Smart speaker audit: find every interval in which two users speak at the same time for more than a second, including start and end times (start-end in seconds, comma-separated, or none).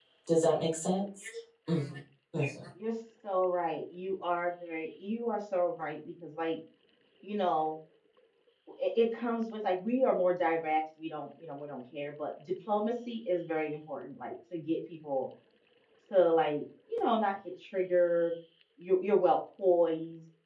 none